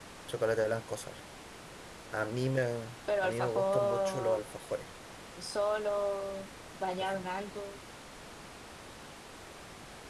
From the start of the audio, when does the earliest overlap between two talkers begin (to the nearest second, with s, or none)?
3 s